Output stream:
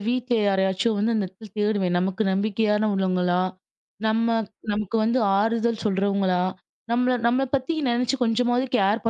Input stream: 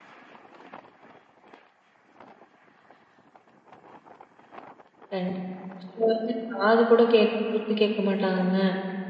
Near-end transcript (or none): கண்டிப்பா. ஒரு சிலர் வந்து காது கூட கேட் குடுத்து கேட்க மாட்டாங்கங்க.